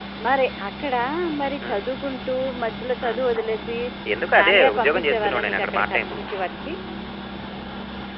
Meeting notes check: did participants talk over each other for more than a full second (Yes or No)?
Yes